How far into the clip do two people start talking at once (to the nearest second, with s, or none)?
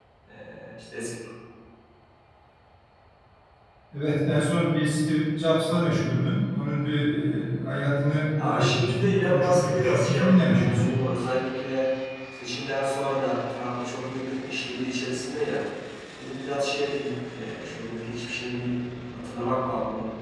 8 s